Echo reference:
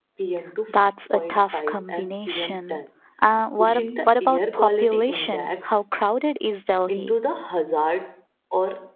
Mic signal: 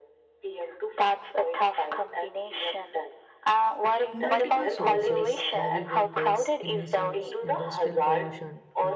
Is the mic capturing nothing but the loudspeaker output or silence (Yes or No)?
No